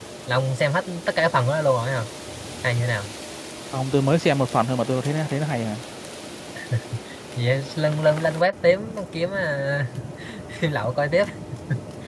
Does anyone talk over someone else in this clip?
No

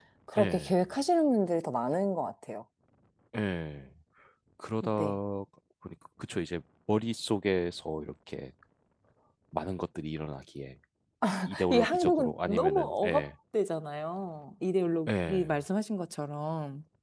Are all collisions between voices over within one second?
No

